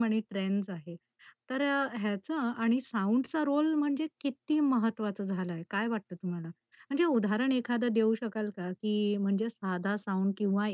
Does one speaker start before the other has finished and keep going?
No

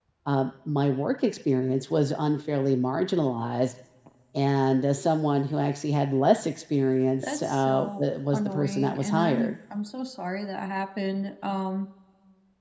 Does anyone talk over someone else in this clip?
Yes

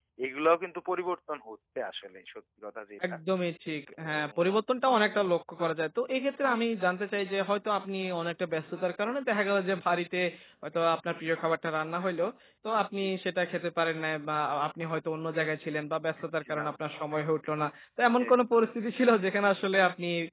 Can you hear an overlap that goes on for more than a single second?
No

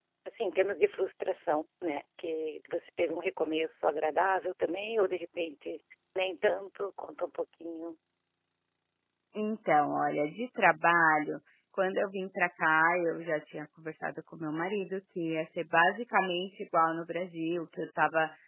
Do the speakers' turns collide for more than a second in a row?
No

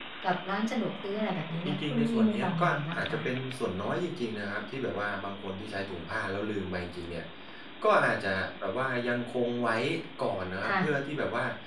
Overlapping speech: Yes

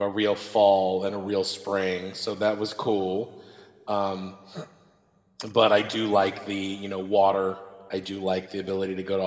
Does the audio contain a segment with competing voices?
No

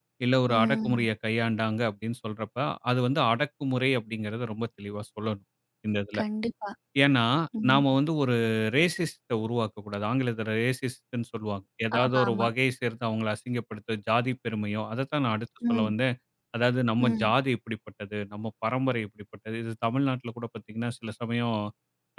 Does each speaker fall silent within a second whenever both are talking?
Yes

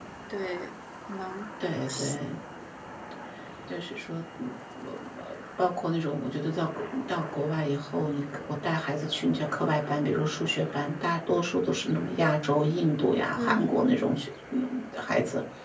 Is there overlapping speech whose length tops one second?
No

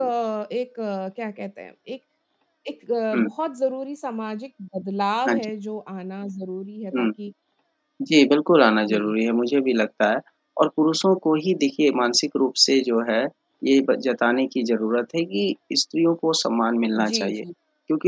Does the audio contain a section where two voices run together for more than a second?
No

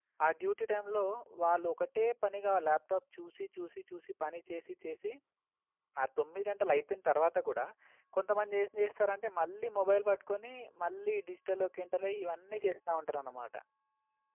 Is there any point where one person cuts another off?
No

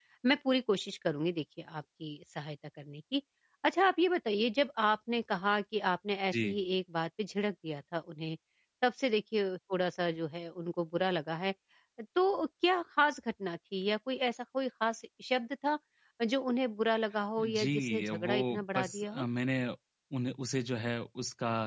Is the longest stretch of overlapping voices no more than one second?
No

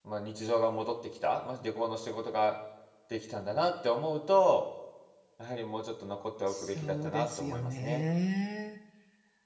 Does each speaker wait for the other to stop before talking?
No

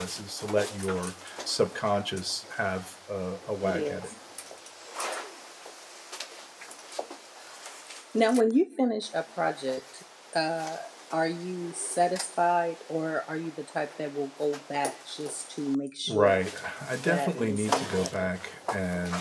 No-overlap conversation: No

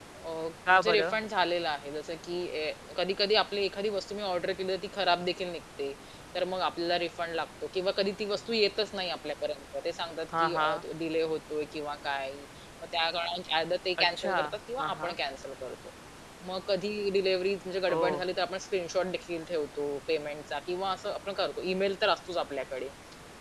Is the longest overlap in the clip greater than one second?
No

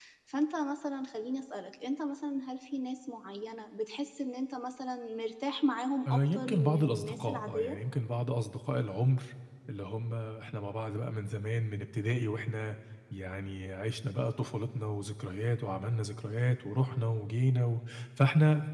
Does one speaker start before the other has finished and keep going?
Yes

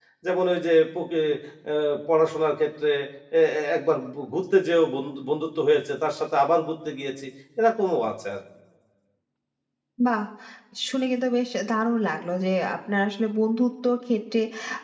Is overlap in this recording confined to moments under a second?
Yes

